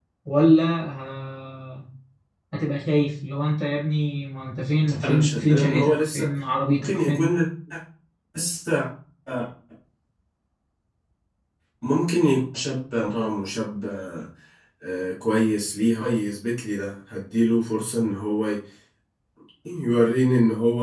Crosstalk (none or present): present